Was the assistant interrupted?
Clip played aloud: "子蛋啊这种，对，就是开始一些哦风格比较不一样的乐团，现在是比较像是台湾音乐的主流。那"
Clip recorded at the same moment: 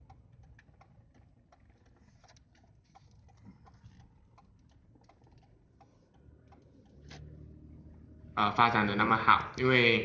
Yes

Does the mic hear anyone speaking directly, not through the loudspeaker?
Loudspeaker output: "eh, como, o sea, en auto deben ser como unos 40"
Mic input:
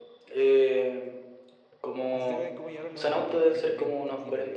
Yes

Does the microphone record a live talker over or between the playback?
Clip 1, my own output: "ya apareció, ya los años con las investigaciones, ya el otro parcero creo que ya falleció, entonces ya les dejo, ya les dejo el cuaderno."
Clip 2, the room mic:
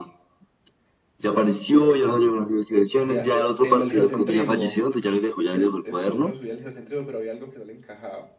Yes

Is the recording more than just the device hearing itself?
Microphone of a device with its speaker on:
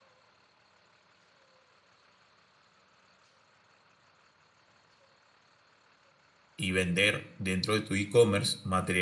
Yes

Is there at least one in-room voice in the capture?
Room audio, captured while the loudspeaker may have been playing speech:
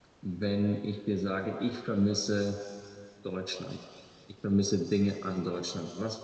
Yes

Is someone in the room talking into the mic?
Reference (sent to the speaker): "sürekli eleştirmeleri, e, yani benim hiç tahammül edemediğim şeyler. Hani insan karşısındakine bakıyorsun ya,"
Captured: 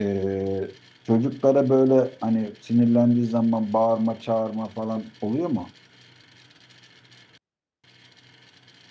Yes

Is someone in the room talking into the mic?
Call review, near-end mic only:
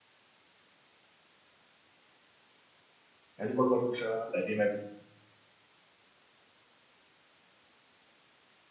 Yes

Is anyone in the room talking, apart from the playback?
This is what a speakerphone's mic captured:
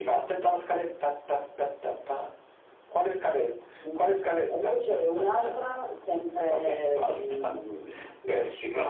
No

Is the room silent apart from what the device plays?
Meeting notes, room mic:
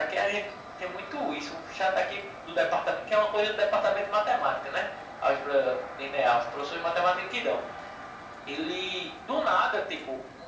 Yes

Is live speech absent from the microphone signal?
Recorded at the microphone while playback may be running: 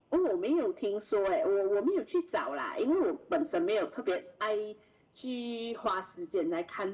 Yes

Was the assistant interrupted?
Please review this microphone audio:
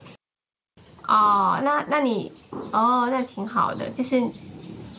Yes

